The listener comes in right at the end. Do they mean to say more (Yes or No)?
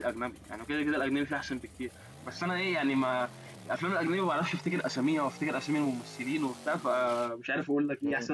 Yes